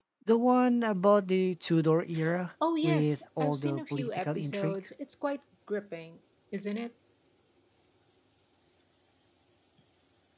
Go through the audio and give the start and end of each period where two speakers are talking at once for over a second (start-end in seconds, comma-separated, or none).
2.8-4.8